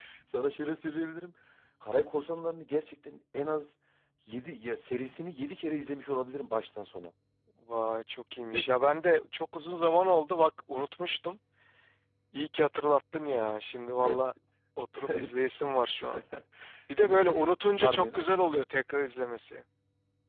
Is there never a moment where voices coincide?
No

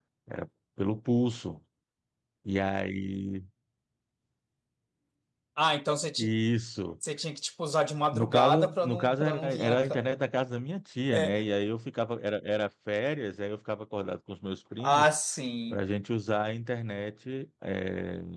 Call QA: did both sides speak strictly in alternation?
No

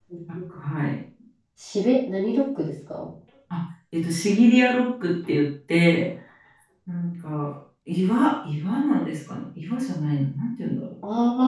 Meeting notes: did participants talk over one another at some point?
No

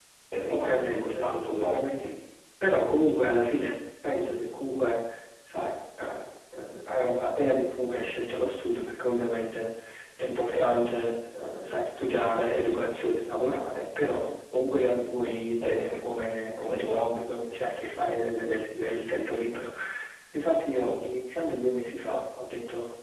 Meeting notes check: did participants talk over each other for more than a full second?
Yes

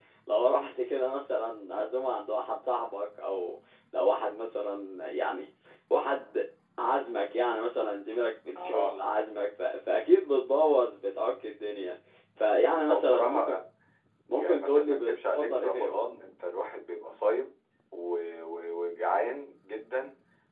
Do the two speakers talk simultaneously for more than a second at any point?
Yes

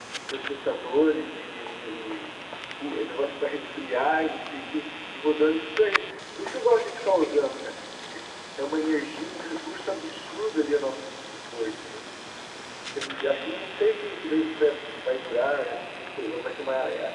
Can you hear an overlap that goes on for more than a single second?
No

